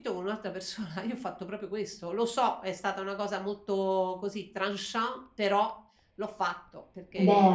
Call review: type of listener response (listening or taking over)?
listening